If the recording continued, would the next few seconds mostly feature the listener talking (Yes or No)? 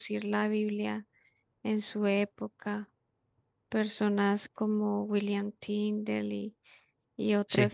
No